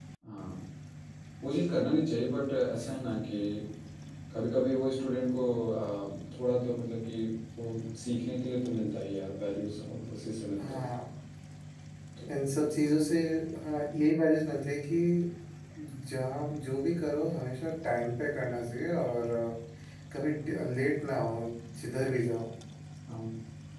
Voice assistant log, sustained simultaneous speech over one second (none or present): none